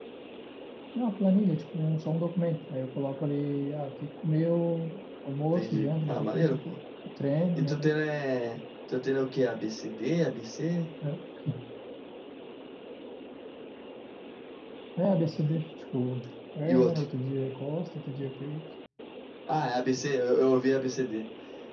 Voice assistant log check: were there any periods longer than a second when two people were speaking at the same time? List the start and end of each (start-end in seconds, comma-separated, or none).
5.5-6.7